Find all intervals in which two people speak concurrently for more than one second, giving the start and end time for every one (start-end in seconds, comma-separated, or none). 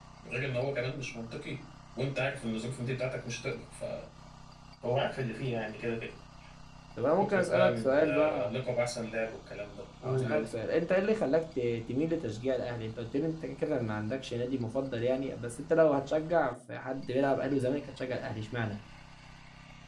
7.2-8.5